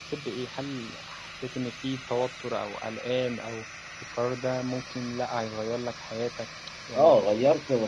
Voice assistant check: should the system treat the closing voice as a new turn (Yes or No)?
Yes